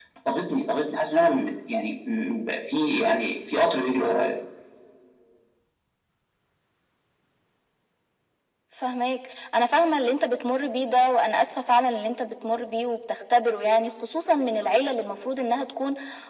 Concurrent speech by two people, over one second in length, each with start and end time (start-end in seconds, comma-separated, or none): none